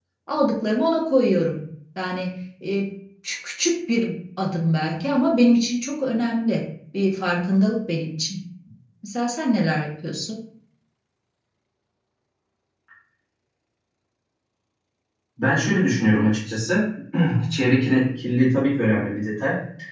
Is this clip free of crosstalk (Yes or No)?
Yes